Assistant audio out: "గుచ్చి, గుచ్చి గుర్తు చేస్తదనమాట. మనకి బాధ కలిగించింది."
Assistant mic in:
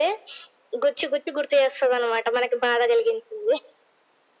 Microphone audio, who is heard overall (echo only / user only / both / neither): echo only